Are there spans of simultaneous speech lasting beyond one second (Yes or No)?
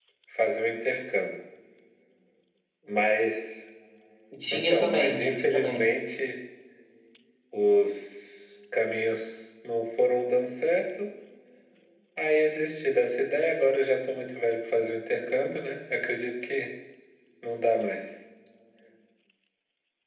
Yes